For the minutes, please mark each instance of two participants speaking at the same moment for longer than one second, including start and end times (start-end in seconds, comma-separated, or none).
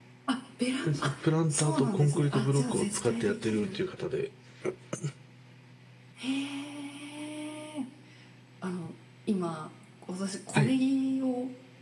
1.5-3.8